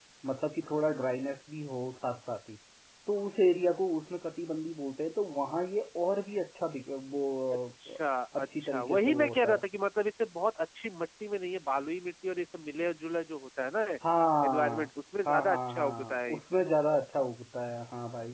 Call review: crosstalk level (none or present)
present